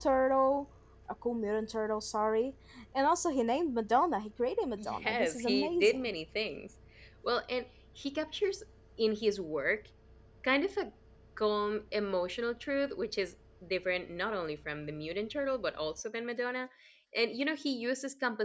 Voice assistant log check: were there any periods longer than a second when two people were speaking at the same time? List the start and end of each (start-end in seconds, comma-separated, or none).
4.8-6.1